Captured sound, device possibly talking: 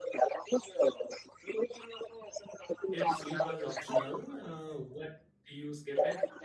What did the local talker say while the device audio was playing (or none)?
If sleep was optional, uh, what do you skip it?